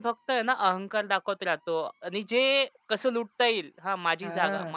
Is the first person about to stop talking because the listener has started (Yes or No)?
No